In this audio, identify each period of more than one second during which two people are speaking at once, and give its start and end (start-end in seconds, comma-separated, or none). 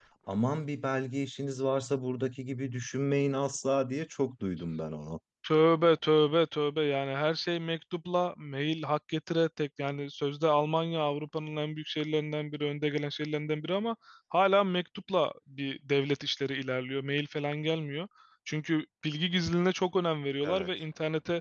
none